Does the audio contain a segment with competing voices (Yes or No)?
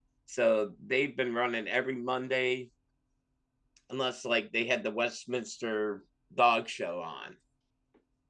No